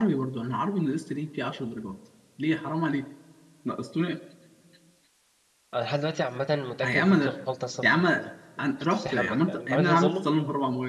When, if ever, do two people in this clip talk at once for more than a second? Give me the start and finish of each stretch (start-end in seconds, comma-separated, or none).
8.8-10.3